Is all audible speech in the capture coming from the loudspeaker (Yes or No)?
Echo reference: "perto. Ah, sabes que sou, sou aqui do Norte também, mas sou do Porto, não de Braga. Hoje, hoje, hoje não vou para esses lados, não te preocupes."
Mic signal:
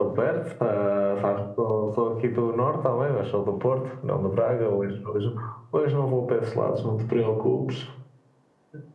Yes